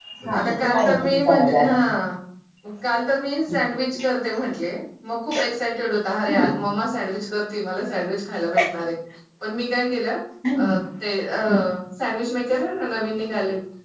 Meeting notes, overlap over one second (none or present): present